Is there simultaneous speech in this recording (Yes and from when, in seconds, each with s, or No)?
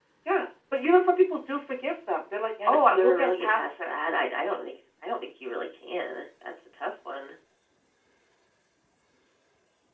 Yes, from 2.6 s